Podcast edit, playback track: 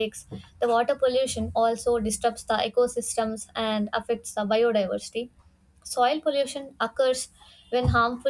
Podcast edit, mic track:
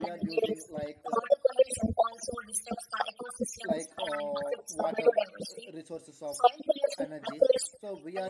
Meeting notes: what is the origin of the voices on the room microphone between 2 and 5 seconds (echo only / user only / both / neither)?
both